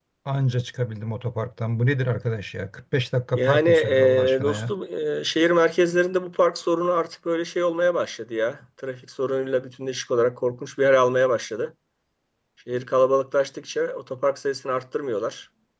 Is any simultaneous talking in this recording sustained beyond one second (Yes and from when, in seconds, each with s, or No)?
Yes, from 3.4 s